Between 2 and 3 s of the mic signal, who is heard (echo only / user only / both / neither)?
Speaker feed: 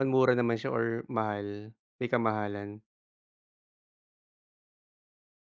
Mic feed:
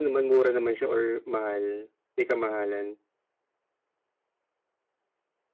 echo only